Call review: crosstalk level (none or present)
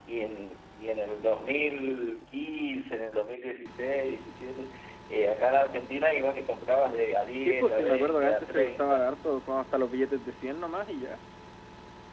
present